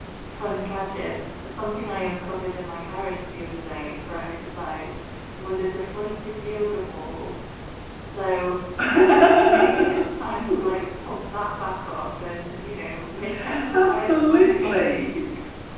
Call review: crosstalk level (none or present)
present